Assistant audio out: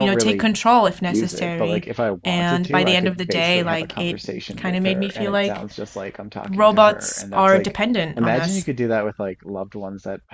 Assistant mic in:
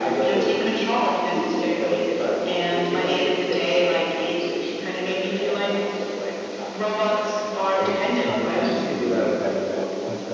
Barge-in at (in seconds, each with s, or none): 7.8 s